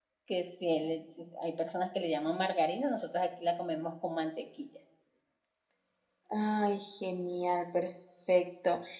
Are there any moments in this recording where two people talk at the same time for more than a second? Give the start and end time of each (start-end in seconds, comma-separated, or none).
none